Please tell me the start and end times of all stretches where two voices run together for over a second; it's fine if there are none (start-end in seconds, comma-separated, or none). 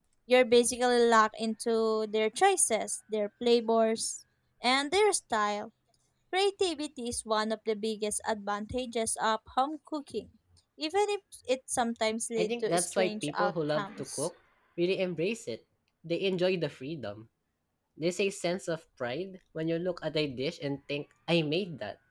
12.4-14.3